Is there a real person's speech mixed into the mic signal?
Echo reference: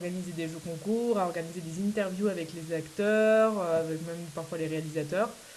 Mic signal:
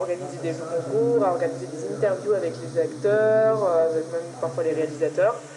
Yes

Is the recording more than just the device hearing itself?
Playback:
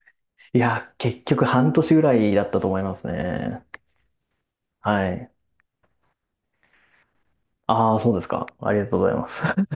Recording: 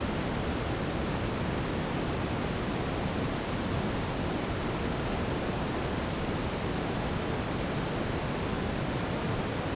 No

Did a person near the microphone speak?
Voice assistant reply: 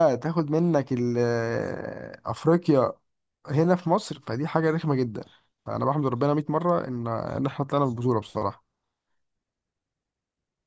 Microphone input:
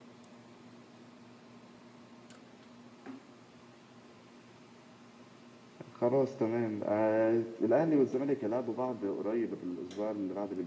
Yes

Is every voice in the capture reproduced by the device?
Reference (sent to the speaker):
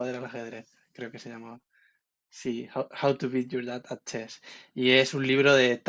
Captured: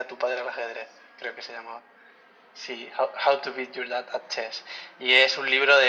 Yes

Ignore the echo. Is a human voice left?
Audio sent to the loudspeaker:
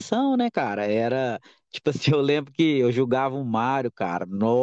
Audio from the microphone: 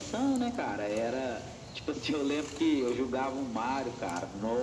No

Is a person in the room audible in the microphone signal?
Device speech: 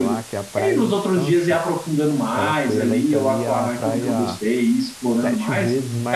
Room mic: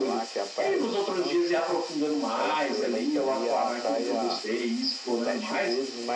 No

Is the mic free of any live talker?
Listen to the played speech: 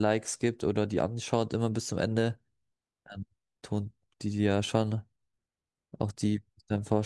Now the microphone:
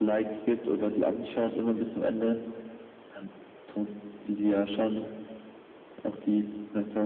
Yes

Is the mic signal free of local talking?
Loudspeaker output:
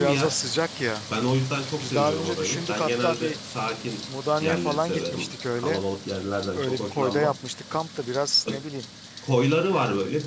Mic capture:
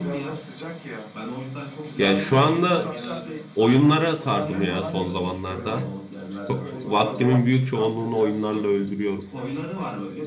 No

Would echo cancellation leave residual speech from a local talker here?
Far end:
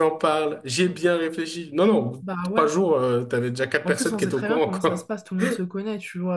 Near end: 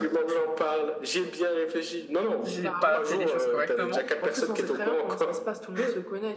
Yes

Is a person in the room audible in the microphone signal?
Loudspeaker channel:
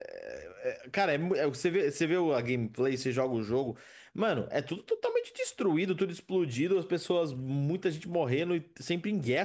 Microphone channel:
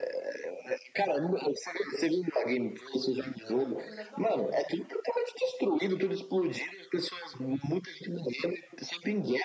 Yes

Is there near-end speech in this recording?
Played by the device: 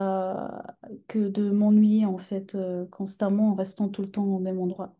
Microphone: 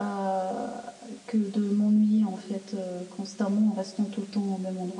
No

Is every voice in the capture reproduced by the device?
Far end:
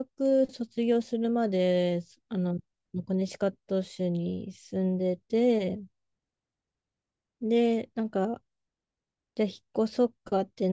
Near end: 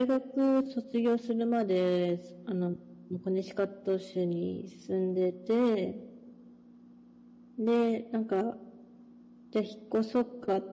Yes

